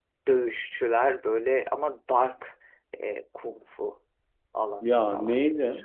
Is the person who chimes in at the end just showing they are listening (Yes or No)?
Yes